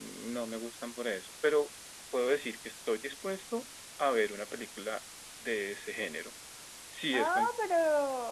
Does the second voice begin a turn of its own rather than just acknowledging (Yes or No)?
Yes